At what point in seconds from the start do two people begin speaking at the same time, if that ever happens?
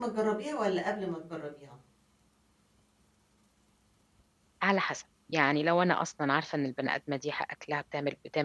none

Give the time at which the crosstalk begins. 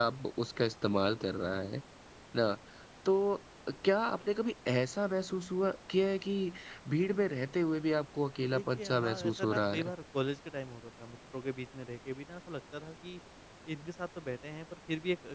8.4 s

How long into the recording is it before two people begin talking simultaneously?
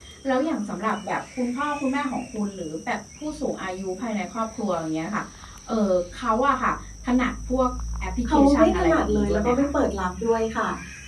8.2 s

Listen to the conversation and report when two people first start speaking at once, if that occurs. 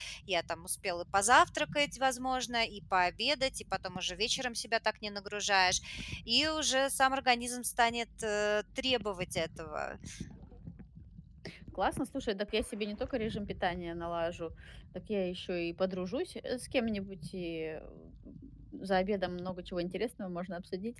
none

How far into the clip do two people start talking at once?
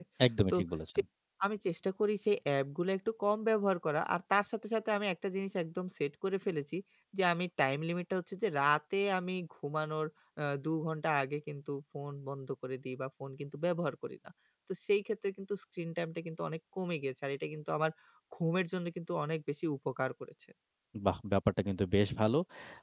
none

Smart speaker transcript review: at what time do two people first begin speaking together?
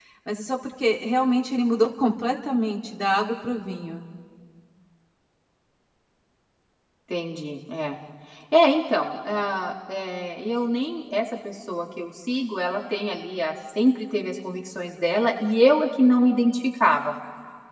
none

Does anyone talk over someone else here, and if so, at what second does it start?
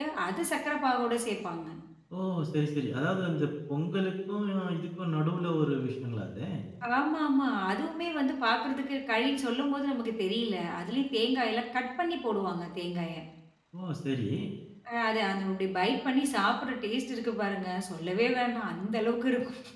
none

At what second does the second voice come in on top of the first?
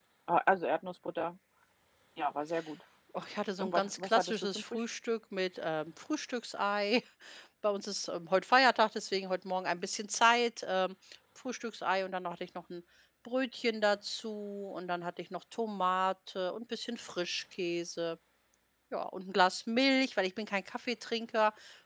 3.6 s

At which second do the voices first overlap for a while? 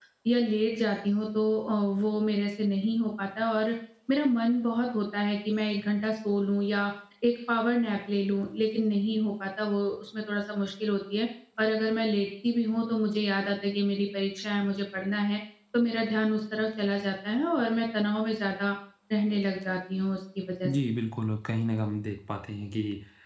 none

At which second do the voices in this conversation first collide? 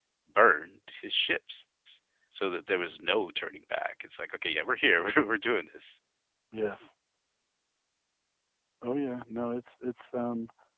none

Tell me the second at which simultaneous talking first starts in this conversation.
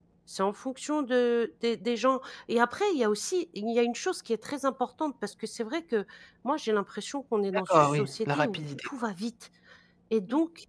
7.7 s

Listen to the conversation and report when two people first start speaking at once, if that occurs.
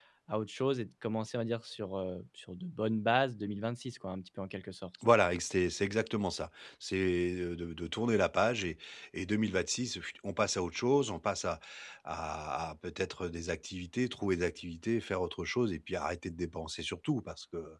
none

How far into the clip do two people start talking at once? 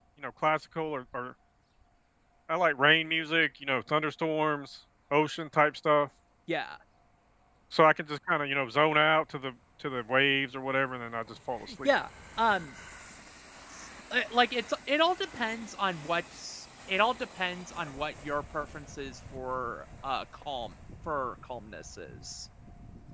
none

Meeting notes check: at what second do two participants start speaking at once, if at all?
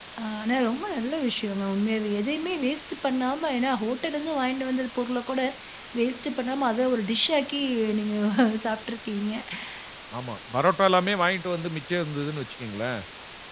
none

